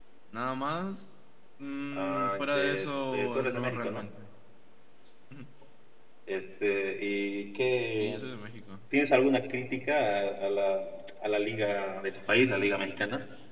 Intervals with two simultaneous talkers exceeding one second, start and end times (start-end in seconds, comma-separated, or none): 1.9-4.1